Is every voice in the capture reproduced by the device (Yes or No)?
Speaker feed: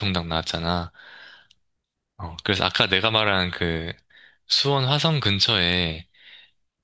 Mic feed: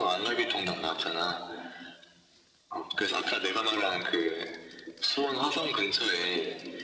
Yes